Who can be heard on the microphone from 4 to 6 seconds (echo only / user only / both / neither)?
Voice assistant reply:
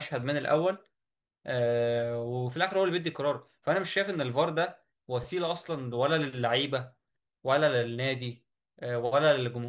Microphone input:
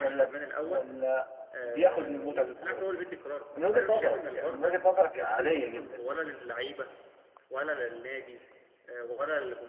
both